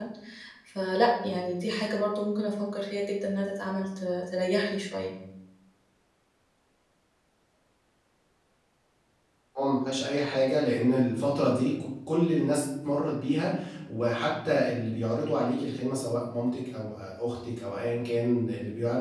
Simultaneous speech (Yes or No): No